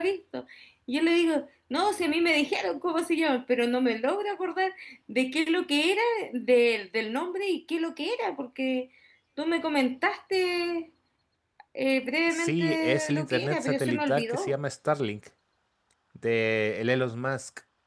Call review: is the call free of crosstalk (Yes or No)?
No